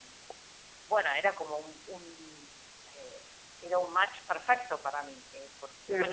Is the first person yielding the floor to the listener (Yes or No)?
No